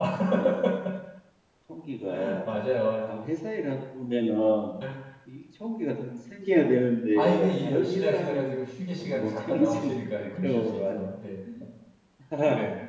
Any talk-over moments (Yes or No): Yes